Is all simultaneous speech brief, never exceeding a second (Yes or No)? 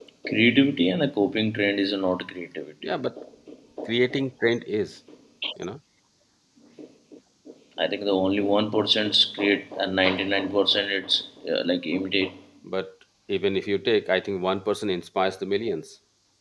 Yes